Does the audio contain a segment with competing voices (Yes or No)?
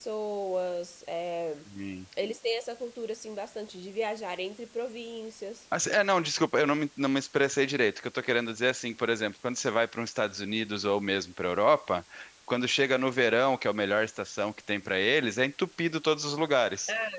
No